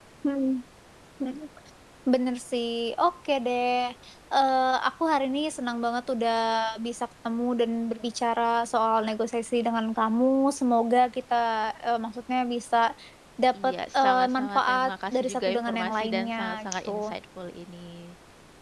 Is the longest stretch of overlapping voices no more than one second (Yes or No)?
No